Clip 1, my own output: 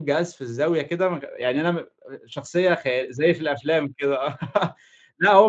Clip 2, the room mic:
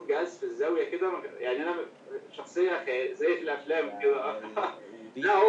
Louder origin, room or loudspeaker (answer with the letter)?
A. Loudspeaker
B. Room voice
A